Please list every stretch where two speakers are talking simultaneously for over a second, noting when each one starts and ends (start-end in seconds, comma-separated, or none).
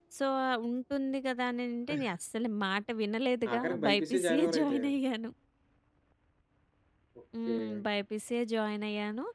3.5-4.8